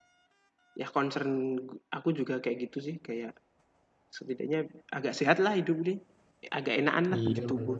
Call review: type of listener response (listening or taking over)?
taking over